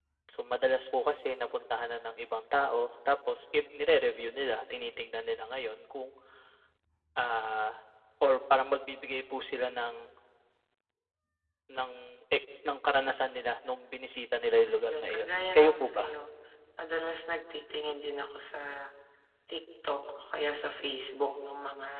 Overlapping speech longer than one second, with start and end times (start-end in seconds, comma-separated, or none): 14.6-16.0